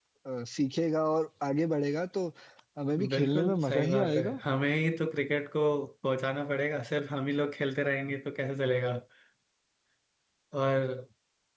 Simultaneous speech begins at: 3 s

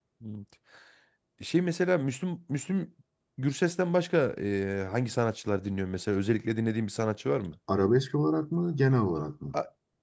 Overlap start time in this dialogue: none

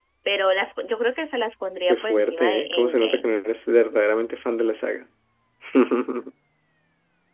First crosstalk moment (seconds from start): 2 s

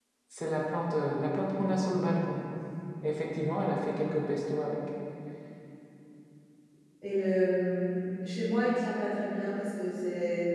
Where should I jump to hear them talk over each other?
none

